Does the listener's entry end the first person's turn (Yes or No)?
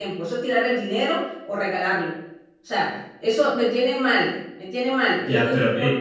Yes